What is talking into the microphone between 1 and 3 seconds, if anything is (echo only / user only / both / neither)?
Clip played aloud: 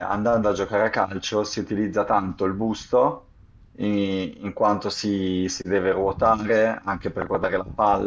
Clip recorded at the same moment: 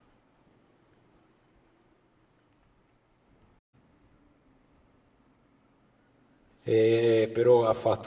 neither